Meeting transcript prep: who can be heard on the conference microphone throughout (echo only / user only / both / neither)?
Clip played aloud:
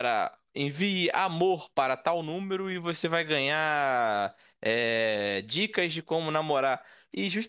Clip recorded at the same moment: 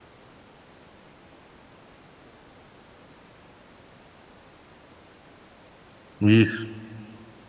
user only